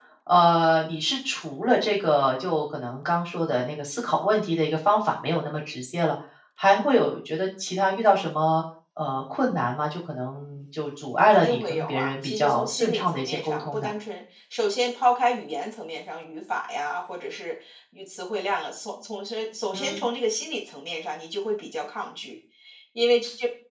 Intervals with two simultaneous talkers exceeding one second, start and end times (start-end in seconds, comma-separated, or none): 11.3-13.9